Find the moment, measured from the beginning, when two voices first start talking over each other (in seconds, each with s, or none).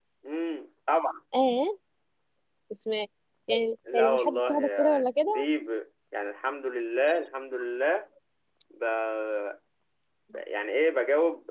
3.9 s